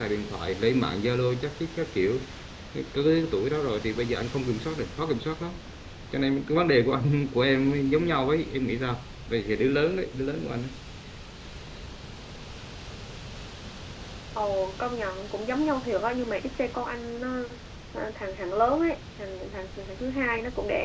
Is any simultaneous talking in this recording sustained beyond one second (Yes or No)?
No